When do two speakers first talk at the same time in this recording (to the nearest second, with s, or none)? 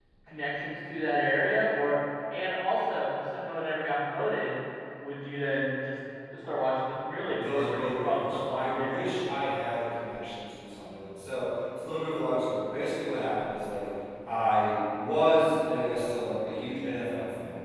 7 s